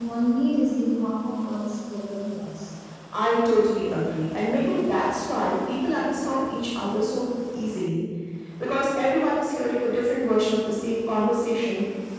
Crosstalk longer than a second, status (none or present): none